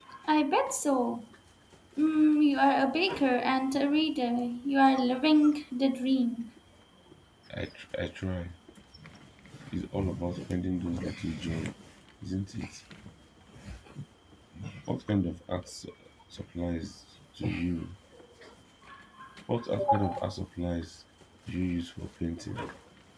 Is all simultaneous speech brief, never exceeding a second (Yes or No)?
Yes